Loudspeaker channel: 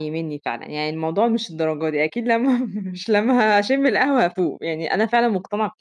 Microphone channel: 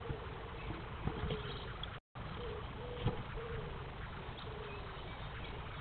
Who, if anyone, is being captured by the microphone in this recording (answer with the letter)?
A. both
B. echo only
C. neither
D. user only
C